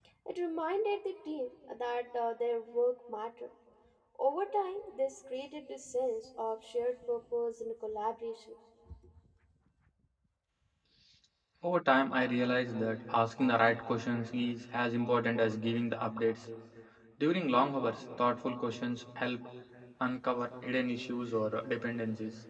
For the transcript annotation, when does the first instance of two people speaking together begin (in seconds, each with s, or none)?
none